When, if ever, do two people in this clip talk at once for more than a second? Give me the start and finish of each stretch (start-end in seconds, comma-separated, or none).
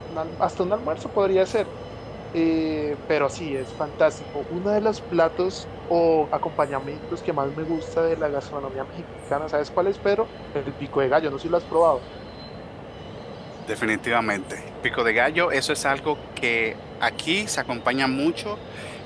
none